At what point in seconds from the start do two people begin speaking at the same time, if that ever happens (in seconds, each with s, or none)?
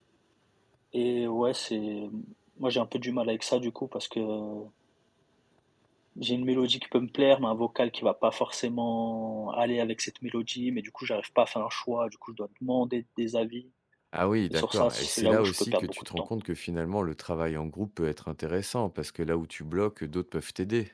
14.5 s